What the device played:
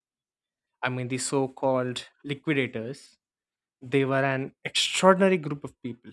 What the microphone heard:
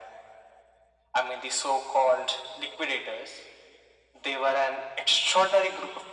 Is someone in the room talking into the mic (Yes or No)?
No